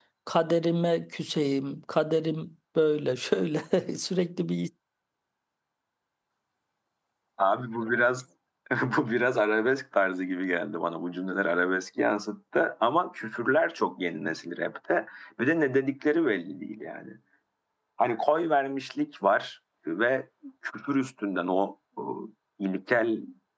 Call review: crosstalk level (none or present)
none